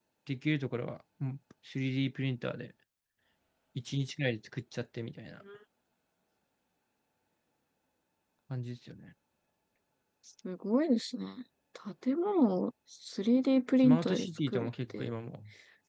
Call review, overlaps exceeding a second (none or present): present